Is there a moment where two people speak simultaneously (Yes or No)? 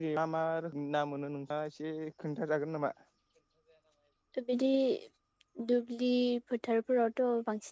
No